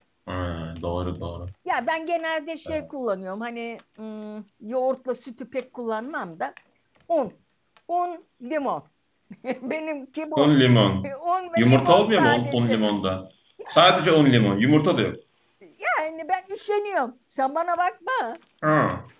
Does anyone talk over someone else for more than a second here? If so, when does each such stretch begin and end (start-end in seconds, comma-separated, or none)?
11.6-12.8